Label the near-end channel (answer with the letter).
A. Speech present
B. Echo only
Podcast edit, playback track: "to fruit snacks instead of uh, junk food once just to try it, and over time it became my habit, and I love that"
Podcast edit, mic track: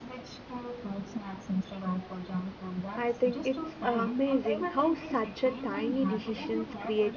A